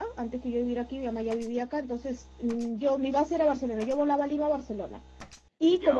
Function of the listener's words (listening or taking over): listening